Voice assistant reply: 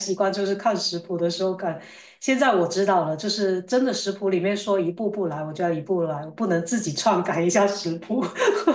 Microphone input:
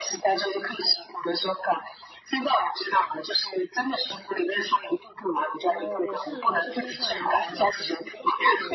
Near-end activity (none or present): present